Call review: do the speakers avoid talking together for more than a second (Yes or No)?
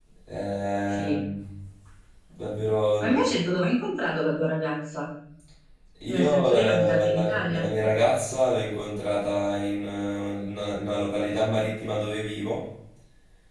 No